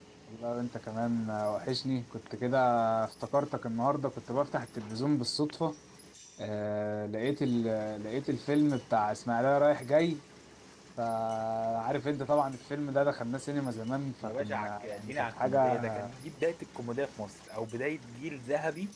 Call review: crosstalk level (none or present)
present